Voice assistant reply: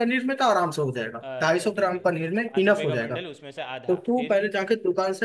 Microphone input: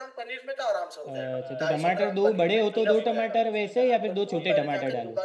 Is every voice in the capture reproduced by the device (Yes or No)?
No